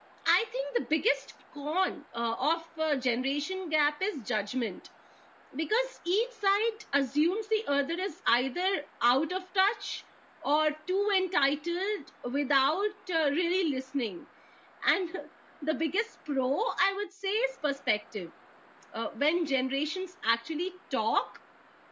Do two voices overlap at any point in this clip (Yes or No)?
No